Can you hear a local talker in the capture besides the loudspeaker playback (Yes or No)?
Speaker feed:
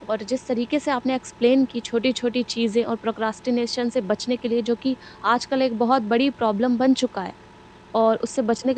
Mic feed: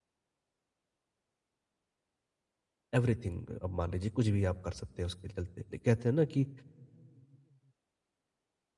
Yes